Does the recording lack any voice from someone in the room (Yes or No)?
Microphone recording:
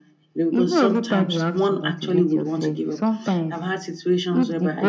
No